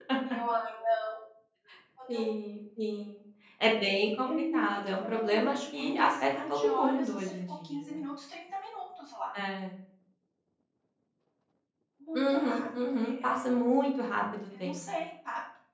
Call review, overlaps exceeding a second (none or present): present